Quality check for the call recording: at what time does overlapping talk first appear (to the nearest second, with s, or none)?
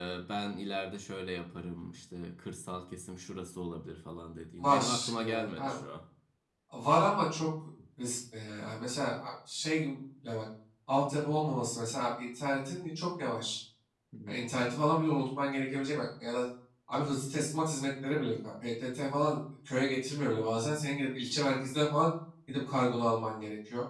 5 s